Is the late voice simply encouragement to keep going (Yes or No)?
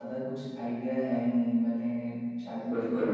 Yes